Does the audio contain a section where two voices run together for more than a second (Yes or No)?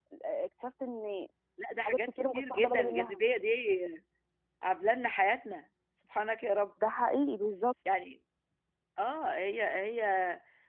Yes